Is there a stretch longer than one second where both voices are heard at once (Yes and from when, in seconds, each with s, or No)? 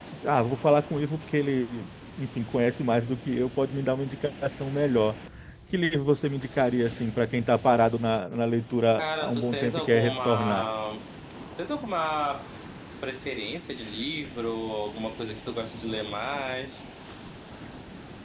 Yes, from 9.0 s